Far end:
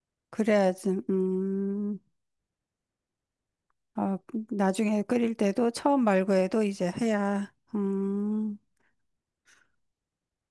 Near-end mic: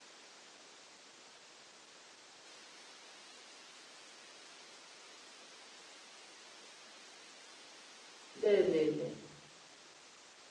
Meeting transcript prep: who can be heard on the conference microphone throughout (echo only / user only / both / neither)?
user only